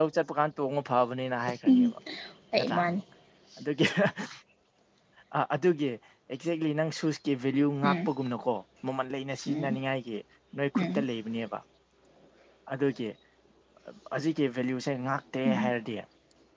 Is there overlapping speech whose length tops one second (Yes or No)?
No